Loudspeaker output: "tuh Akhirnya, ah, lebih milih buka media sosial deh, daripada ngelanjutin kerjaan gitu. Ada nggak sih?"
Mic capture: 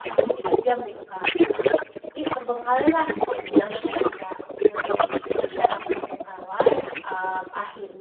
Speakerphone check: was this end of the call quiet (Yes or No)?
No